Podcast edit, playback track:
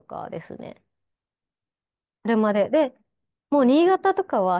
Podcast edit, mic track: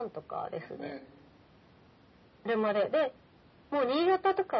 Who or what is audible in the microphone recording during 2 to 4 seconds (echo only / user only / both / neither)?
echo only